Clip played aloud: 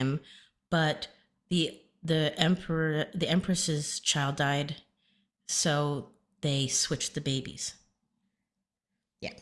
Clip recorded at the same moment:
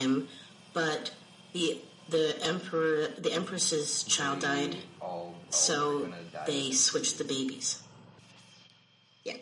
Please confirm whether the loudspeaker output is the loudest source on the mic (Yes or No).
Yes